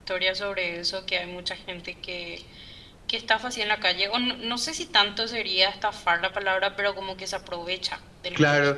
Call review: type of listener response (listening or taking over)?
taking over